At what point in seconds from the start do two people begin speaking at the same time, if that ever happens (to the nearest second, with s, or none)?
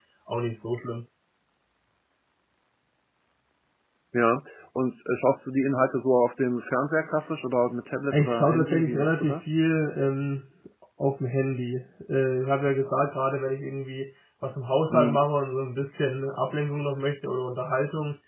8 s